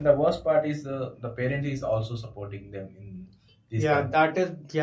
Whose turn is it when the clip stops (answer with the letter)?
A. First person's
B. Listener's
B